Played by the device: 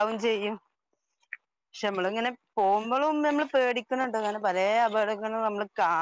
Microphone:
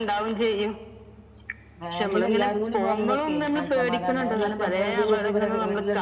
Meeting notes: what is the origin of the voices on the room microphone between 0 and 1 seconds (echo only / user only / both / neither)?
echo only